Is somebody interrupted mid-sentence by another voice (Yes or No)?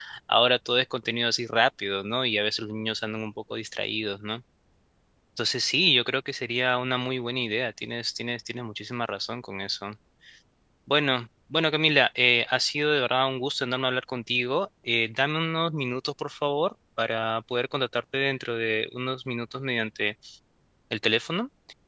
No